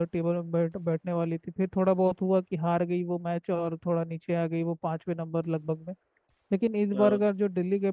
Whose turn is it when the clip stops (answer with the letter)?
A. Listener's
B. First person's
B